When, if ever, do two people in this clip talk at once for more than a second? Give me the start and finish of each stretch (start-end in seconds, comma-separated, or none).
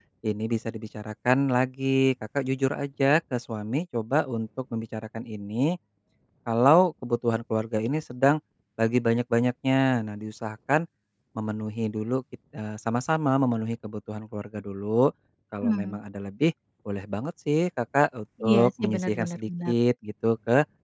18.5-19.7